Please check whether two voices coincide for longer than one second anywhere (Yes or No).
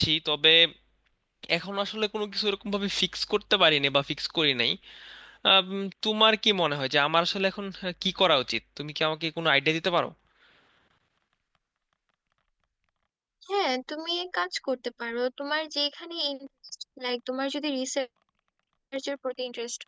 No